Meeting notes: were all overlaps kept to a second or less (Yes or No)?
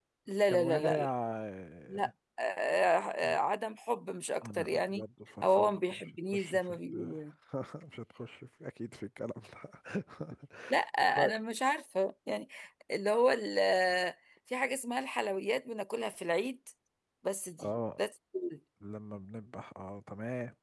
No